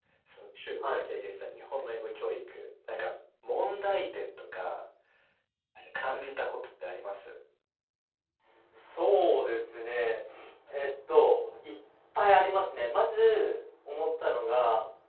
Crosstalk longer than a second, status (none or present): none